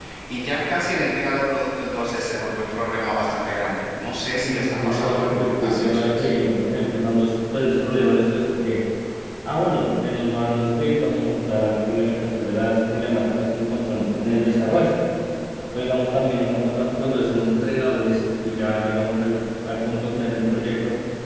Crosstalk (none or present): present